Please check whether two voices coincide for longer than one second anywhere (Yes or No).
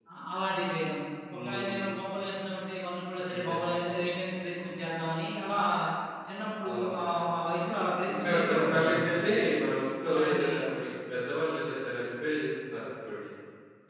Yes